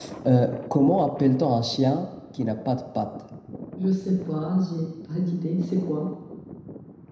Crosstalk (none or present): none